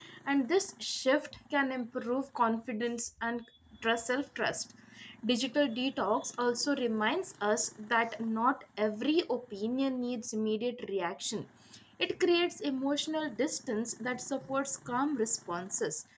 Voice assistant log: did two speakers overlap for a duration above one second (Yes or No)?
No